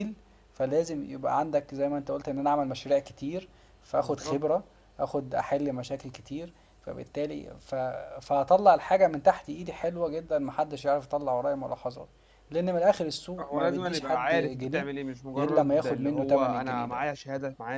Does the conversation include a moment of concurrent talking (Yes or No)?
Yes